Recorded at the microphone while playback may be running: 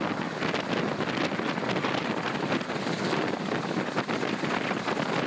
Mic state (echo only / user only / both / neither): neither